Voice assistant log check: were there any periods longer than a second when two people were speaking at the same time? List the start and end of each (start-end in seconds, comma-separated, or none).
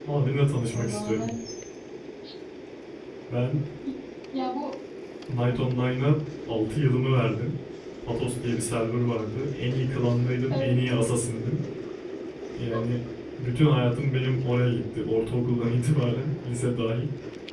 none